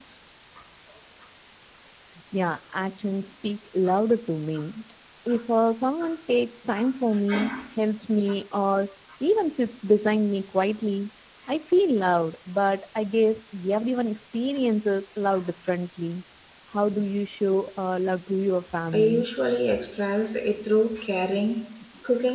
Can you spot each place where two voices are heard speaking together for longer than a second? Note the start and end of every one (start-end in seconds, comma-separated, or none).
none